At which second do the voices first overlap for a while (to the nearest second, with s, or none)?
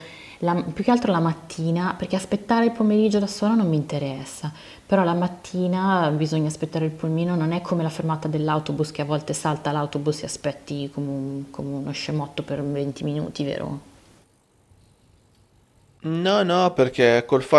none